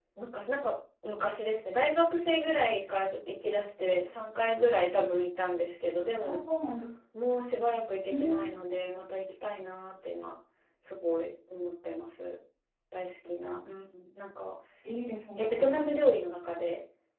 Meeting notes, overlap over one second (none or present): none